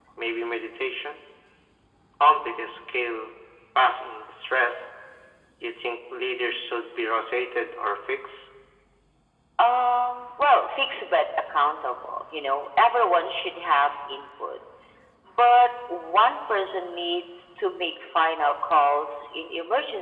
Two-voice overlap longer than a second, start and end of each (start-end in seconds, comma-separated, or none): none